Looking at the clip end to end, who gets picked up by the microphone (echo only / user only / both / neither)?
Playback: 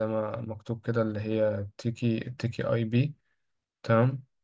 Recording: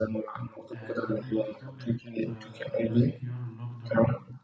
both